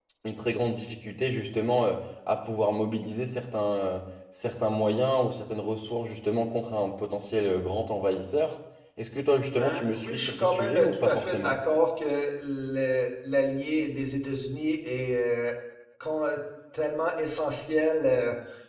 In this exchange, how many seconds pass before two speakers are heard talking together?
9.6 s

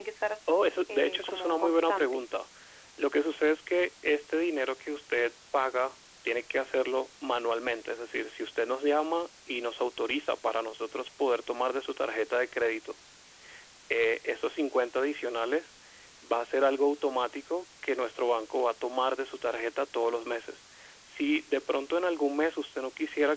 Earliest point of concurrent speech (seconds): 0.9 s

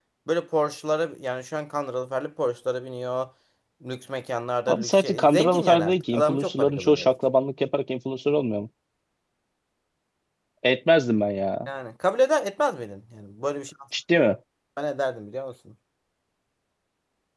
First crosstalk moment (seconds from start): 4.7 s

